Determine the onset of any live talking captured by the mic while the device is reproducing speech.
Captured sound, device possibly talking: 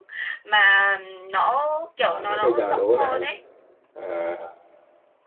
2.0 s

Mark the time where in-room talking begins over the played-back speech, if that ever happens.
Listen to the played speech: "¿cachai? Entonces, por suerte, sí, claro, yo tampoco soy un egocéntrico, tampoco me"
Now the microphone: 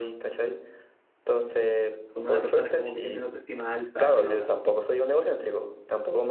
2.1 s

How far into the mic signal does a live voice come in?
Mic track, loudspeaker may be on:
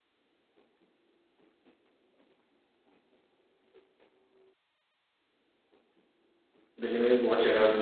6.8 s

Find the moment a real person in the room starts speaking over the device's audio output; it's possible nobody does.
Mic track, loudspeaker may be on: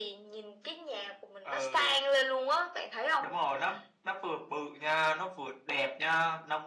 none

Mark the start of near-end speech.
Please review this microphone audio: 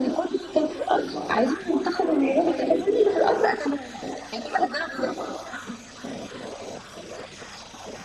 2.0 s

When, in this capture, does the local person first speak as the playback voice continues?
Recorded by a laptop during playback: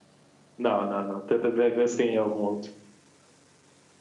none

